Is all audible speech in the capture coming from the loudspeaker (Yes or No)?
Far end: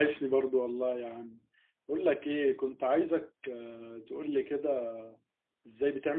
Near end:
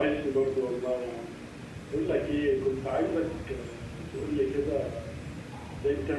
Yes